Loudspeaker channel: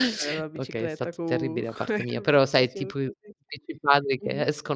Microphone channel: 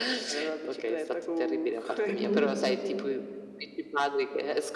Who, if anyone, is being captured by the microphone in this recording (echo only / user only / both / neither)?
both